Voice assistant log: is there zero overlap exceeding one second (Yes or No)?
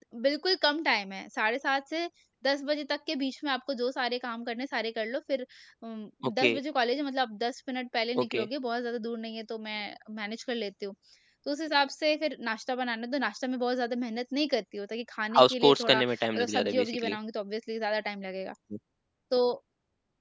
No